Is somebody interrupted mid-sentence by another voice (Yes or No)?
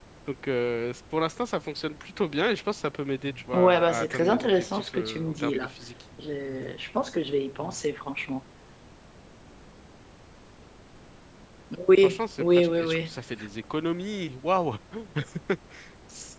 Yes